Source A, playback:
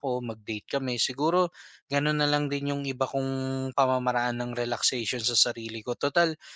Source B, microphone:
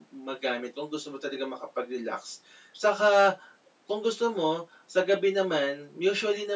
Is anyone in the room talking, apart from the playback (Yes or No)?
Yes